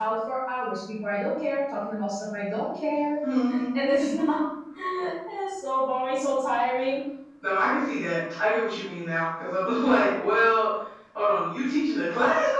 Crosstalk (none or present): none